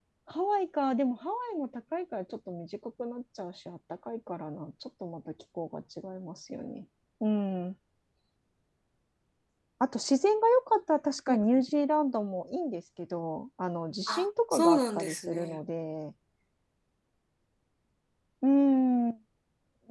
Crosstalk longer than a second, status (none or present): present